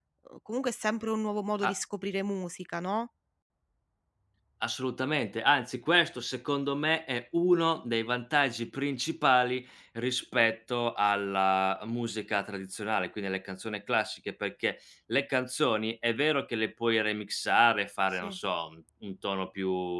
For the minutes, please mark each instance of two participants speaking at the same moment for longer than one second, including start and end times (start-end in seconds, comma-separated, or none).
none